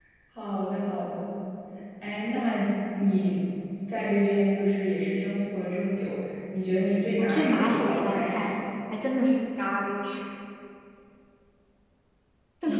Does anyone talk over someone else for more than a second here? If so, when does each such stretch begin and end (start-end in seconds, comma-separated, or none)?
7.2-8.6